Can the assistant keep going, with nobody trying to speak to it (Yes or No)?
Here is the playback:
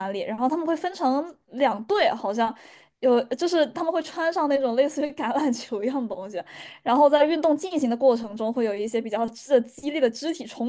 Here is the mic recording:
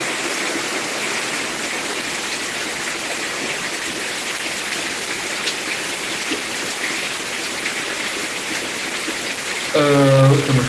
No